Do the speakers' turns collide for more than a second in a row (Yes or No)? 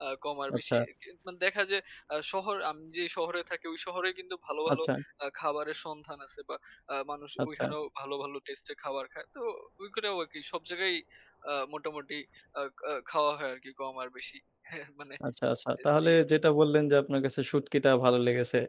No